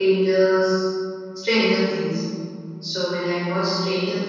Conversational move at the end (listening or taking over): listening